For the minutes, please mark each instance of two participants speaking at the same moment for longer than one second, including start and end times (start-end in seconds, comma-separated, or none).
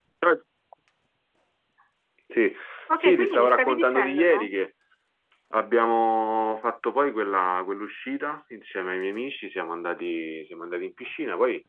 3.0-4.5